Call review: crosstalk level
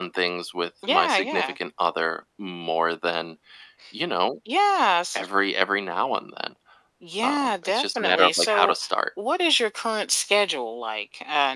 present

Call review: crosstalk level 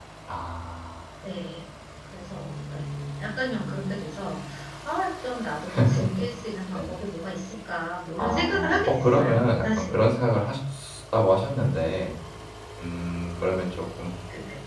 present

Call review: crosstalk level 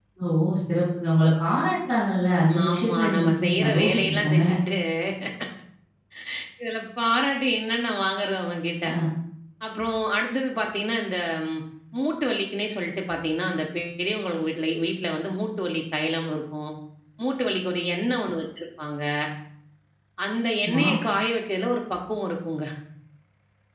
present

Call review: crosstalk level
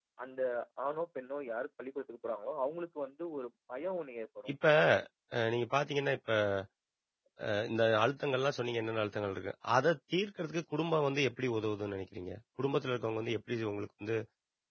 none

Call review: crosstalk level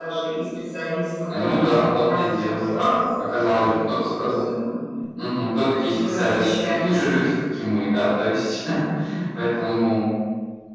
present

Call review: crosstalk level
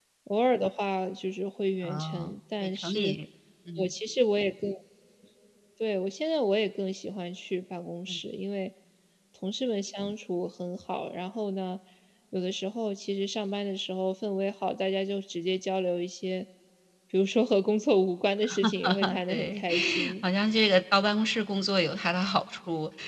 present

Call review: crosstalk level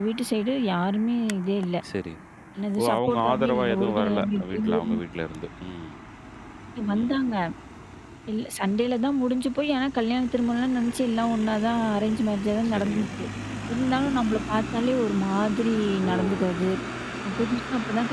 present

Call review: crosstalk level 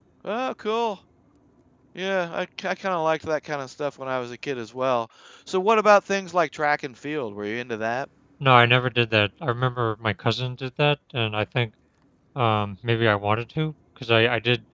none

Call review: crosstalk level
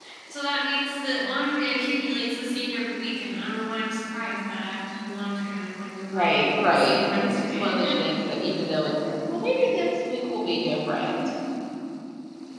present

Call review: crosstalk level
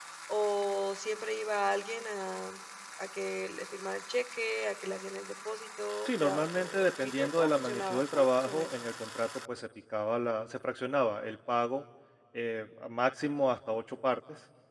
present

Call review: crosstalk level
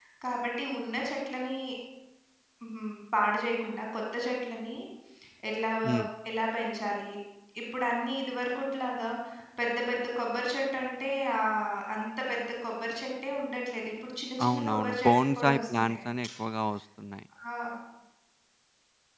present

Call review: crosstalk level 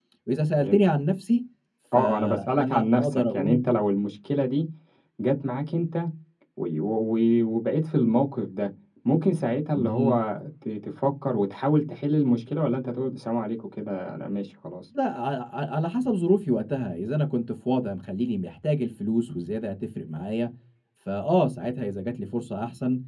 present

